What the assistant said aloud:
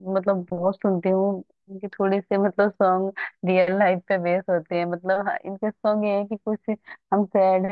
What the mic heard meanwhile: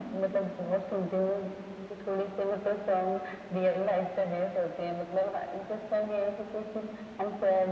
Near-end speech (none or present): none